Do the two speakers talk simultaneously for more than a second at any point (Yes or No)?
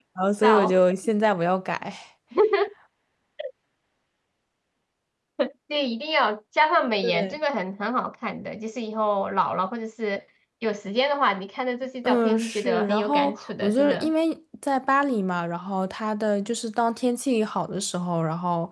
Yes